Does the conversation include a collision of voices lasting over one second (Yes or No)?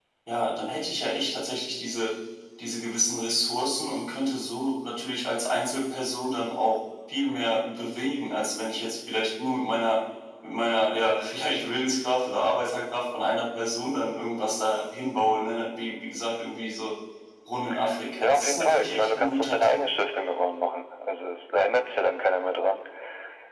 Yes